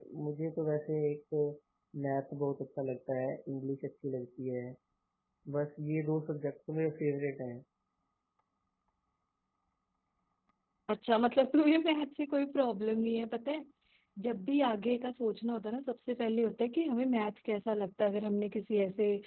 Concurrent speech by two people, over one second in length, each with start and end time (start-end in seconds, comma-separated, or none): none